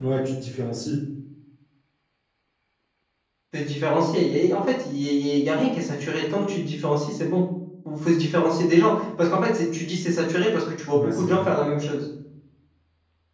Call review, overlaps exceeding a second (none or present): none